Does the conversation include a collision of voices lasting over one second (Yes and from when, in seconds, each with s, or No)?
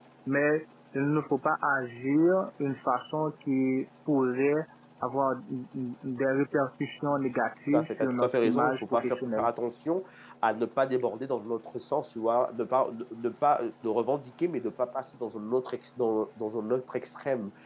Yes, from 7.7 s